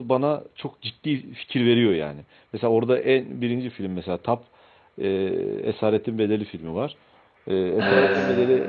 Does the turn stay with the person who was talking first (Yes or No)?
Yes